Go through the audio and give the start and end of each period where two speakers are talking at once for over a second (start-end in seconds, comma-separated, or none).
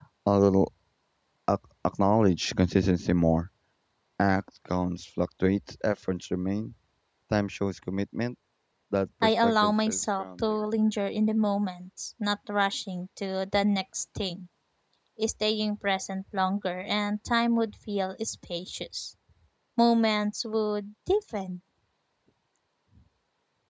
9.2-10.6